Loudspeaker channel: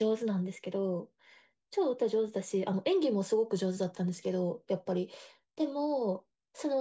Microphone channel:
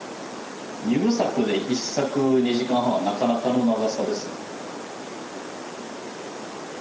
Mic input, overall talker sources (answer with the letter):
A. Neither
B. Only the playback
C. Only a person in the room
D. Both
C